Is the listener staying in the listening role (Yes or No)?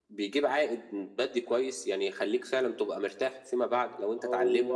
Yes